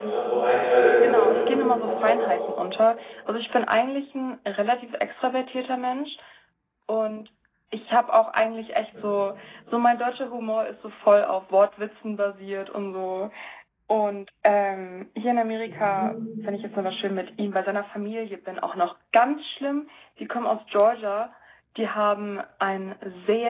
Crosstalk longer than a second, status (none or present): present